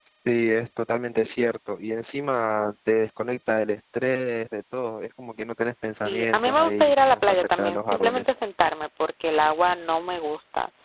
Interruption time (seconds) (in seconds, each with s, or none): 6.0 s